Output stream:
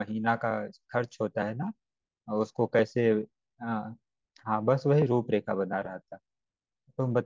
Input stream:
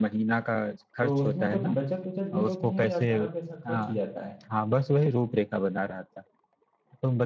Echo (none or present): present